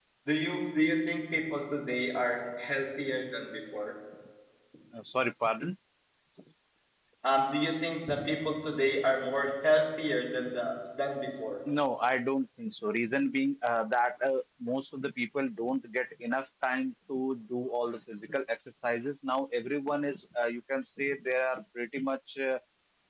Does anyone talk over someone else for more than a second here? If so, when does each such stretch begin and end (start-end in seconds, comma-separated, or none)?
none